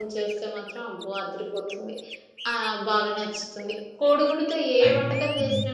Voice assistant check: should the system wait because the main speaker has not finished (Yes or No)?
Yes